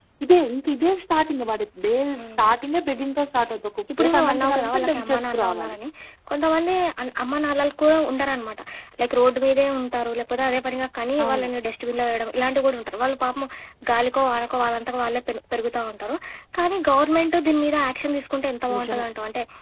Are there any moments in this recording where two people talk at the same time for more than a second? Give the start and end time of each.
4.0-5.8

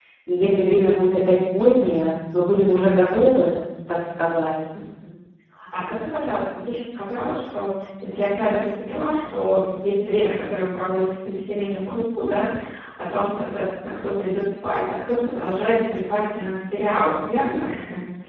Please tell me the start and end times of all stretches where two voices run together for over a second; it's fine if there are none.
none

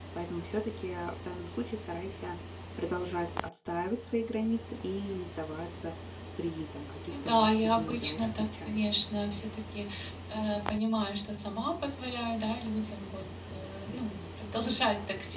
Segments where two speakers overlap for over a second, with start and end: 7.1-8.8

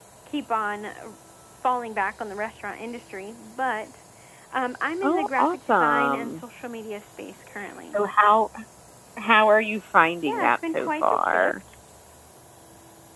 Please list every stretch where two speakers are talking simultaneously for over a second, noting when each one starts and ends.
5.0-6.4, 10.3-11.5

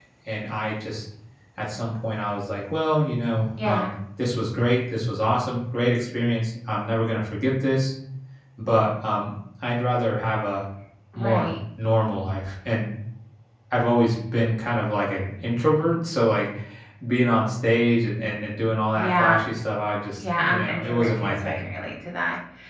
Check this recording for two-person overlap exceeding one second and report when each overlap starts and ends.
20.2-21.7

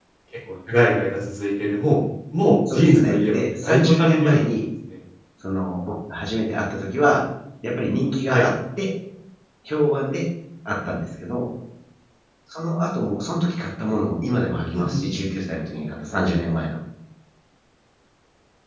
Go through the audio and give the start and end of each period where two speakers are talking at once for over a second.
2.7-4.4

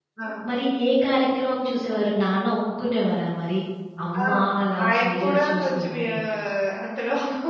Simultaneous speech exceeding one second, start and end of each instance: 4.9-6.1

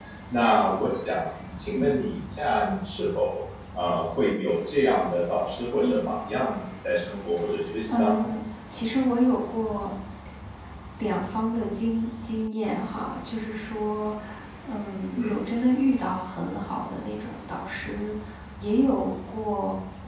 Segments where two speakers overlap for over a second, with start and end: none

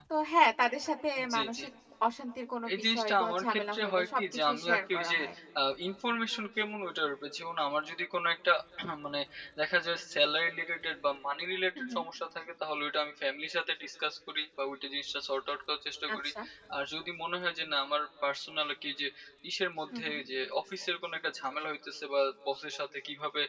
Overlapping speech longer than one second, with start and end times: 2.7-5.2

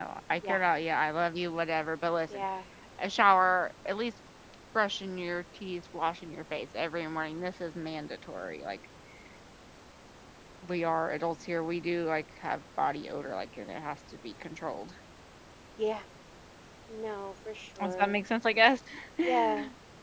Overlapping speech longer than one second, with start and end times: none

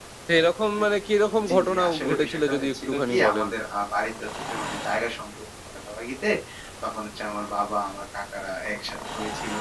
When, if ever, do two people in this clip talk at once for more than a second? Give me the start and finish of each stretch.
1.5-3.5

